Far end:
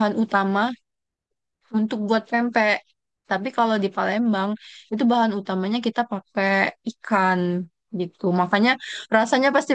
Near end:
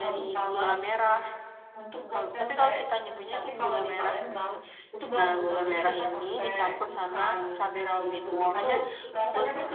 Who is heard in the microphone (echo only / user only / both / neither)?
both